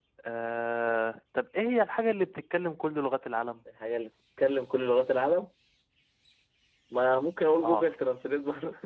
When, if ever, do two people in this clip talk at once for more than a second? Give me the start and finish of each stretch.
none

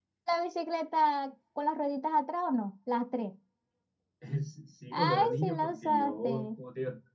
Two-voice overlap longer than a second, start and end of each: 4.9-6.5

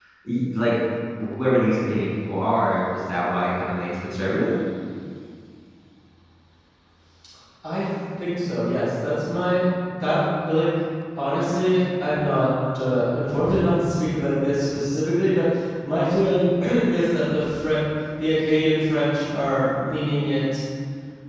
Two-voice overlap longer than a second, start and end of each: none

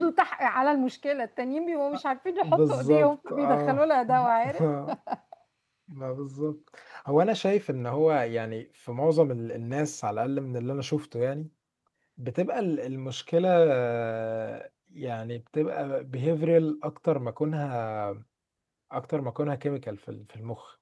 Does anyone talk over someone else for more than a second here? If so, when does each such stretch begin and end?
2.4-3.8

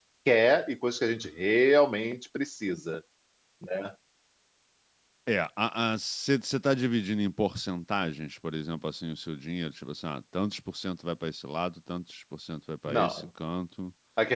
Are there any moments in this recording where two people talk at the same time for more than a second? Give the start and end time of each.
none

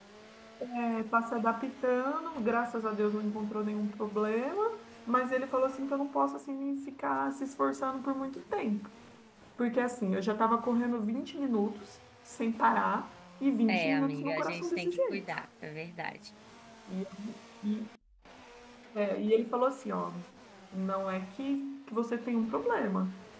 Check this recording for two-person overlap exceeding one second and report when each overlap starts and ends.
13.7-15.4

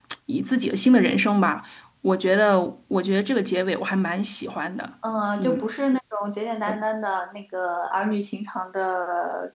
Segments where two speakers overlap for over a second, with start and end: none

